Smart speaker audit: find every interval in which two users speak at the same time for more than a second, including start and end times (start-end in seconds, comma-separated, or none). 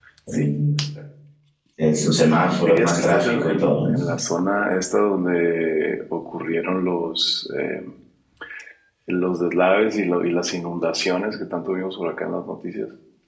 2.6-3.9